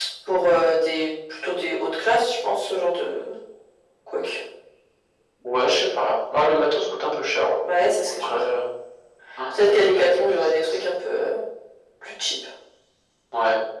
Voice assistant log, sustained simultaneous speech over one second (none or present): present